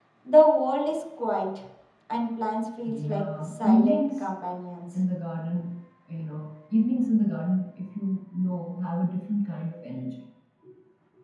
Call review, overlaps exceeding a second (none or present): present